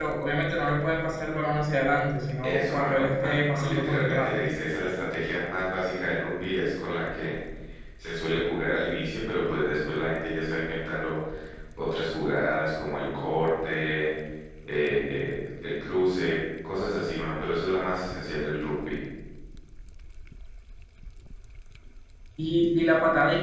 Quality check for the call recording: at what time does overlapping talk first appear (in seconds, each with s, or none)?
2.4 s